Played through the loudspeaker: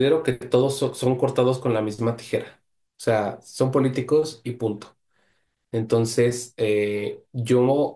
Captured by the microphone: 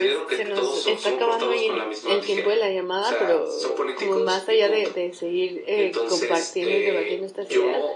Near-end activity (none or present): present